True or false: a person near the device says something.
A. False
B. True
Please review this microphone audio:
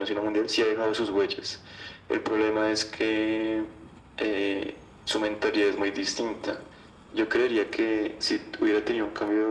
A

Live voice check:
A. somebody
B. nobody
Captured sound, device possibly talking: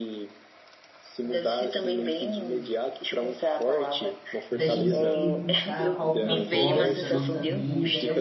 A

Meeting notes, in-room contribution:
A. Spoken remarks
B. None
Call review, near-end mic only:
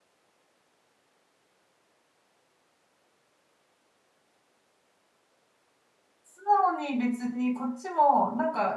A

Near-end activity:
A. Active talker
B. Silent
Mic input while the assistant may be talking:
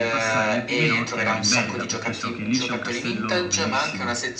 A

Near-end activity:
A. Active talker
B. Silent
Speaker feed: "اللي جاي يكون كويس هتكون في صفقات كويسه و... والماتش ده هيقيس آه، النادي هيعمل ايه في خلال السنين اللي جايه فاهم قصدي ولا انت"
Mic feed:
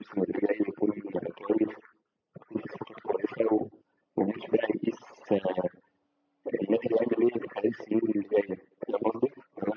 B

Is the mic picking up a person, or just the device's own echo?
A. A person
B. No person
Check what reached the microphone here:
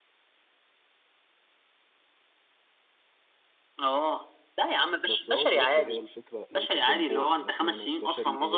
A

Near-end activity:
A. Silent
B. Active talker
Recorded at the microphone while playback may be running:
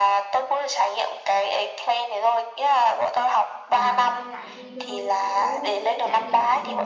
B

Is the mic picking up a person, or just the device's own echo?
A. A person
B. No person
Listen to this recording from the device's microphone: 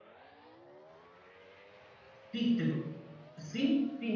A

